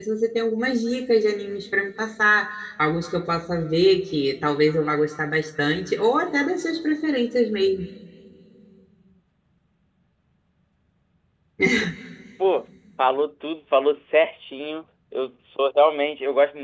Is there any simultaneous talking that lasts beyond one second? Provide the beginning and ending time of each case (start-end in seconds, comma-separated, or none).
none